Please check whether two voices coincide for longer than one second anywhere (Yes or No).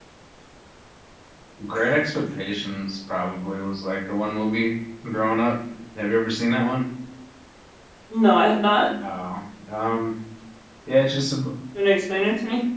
No